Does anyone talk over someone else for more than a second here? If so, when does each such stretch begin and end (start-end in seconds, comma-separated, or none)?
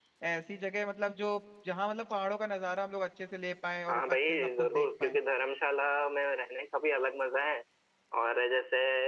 3.9-5.2